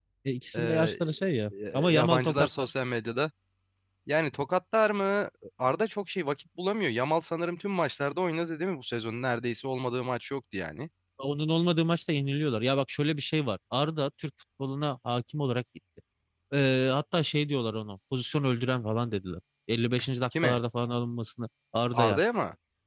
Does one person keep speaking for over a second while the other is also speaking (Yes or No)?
Yes